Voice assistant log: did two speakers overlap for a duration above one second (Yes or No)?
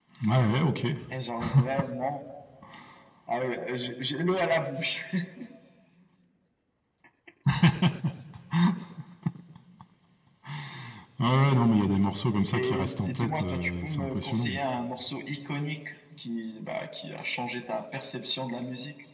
Yes